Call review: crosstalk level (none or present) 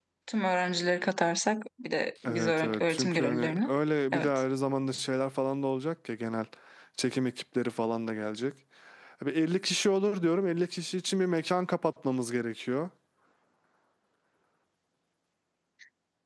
present